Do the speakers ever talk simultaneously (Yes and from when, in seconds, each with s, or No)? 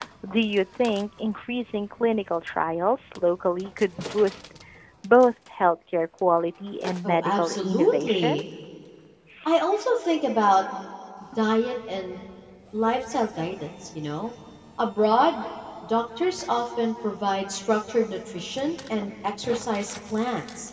Yes, from 7.0 s